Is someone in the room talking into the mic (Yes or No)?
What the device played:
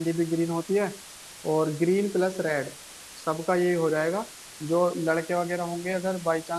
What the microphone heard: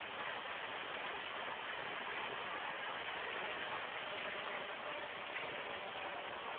No